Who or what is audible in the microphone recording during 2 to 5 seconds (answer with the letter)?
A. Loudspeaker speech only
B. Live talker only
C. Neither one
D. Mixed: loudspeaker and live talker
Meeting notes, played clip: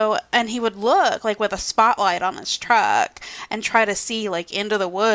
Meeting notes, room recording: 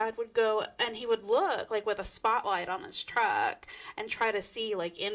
A